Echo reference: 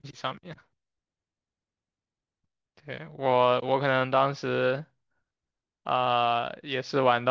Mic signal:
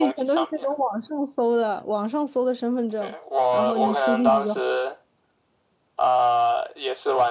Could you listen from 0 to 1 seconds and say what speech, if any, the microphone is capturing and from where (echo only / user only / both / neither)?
both